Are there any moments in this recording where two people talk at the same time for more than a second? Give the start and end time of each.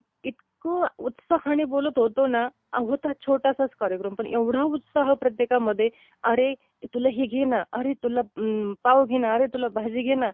none

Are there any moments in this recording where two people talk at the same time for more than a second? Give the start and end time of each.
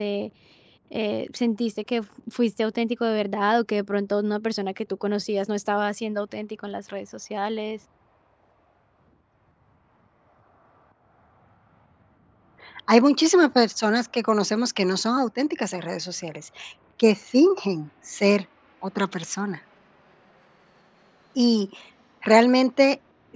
none

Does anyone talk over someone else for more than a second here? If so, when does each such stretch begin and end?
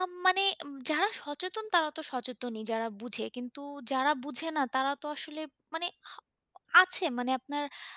none

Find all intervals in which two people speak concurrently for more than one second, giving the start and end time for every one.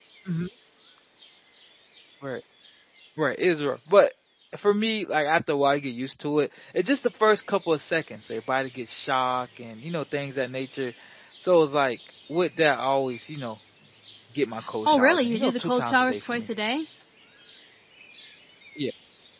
14.9-16.5

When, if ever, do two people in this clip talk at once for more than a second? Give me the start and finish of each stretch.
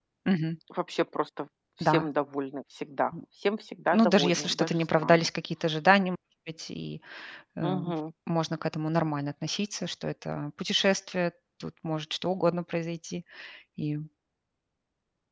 3.9-5.3

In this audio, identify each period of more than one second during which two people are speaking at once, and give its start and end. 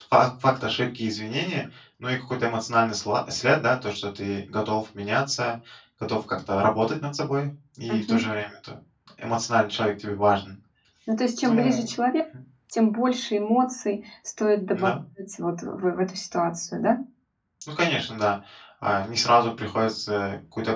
none

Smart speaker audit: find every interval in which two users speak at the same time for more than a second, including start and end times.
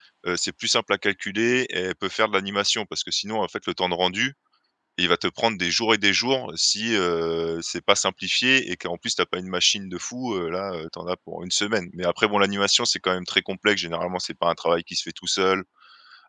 none

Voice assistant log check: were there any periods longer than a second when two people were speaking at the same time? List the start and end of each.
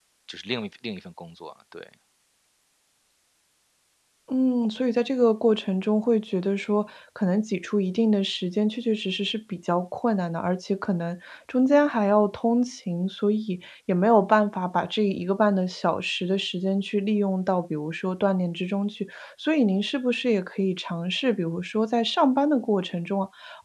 none

